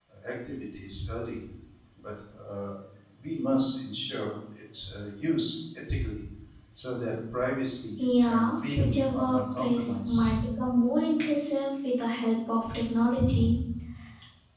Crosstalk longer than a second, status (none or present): present